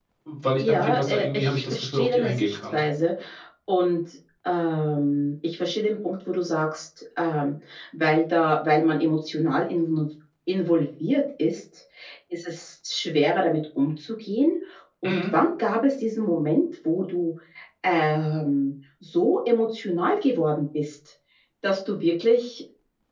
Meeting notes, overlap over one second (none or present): present